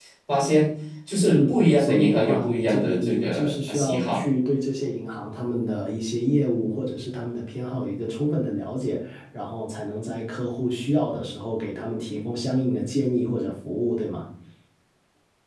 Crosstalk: present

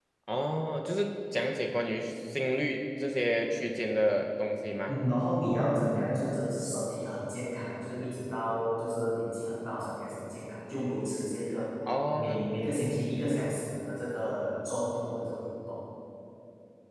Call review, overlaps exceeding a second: none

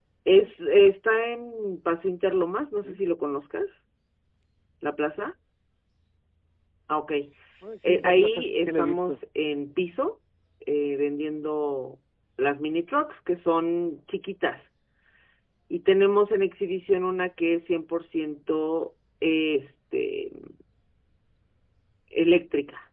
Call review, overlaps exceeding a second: present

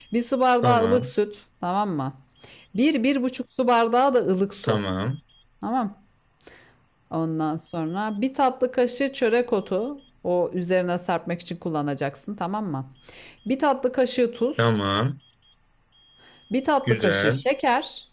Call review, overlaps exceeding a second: none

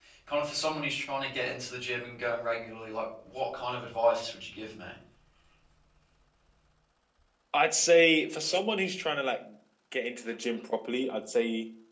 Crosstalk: none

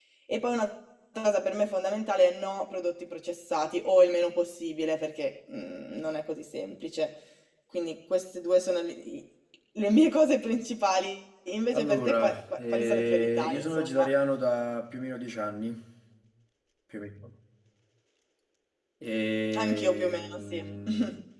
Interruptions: present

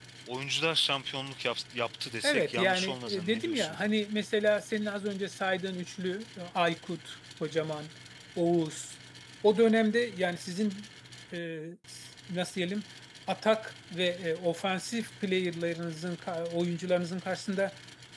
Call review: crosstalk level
present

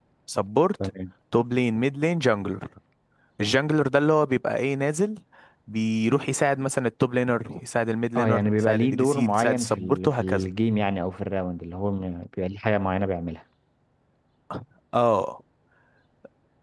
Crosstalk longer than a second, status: present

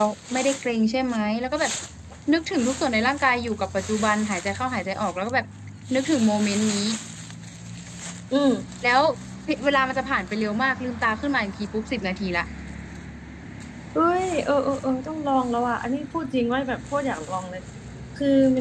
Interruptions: none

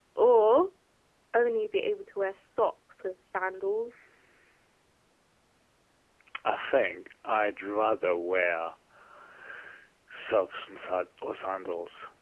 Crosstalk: none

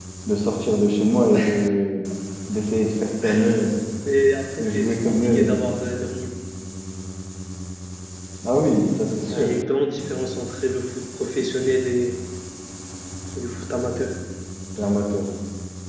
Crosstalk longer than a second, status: present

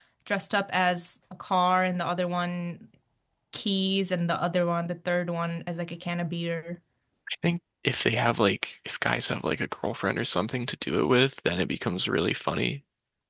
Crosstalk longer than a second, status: none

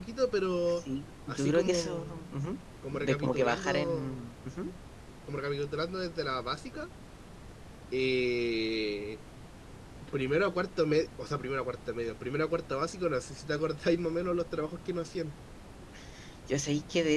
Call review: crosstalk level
present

